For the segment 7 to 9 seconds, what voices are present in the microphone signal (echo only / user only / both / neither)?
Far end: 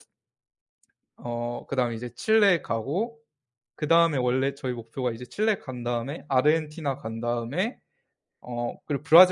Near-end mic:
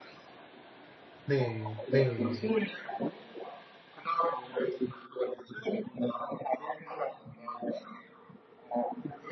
echo only